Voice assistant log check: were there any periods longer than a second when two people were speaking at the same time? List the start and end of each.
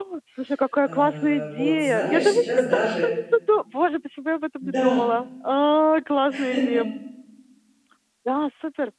0.8-3.1

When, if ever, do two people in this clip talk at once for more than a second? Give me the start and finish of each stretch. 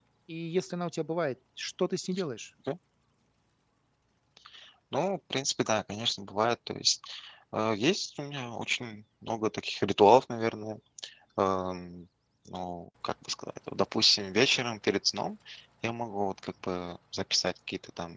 none

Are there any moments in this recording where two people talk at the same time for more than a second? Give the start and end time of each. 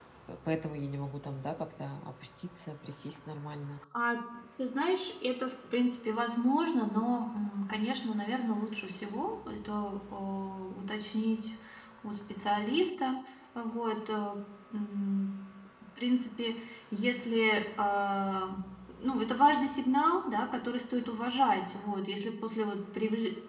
none

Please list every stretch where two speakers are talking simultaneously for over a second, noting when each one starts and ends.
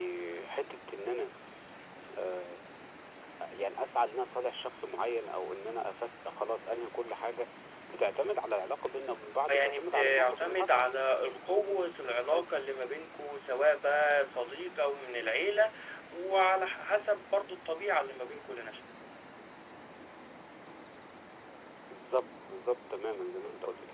9.5-10.9

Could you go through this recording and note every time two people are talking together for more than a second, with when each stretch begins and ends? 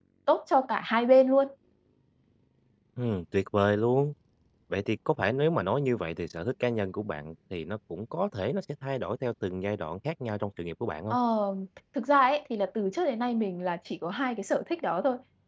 none

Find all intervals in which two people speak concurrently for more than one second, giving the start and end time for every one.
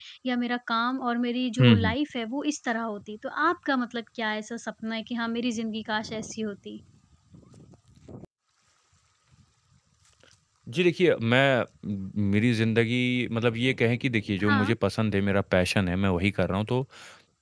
none

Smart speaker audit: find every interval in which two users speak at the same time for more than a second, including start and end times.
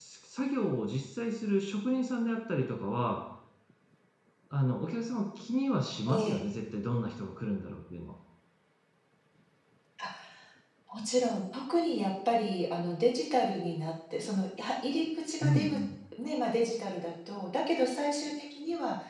none

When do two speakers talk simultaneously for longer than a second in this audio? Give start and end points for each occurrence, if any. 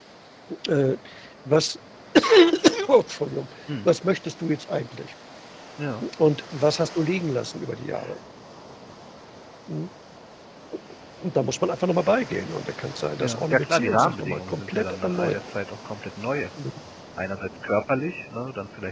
13.2-15.4

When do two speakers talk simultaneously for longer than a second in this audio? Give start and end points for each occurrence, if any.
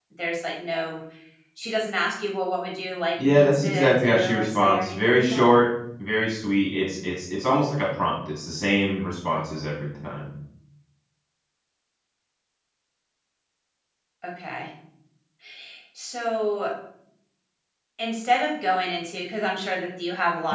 3.2-5.5

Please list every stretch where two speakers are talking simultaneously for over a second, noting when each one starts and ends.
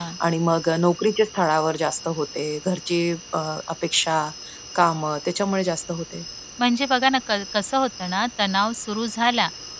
none

